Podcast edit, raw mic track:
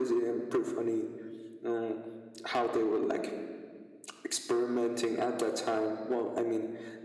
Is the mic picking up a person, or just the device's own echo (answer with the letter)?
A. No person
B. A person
A